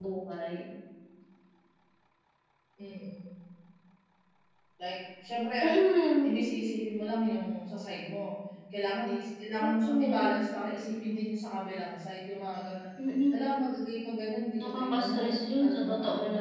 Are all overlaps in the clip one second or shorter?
No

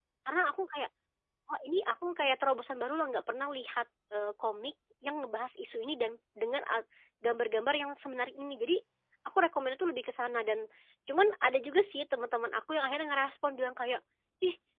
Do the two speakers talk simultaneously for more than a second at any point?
No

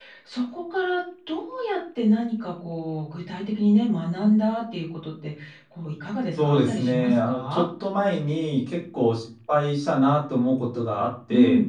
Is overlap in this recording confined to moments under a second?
No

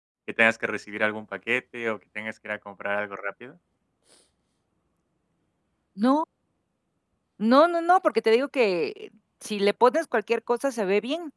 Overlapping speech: No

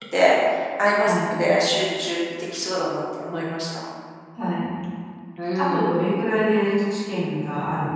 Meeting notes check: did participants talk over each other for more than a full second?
No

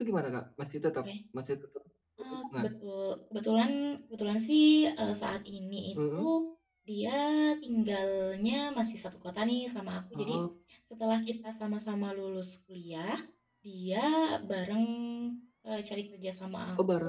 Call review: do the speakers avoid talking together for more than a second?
Yes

